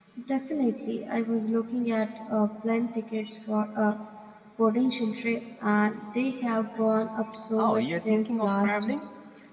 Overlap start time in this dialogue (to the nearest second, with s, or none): 8 s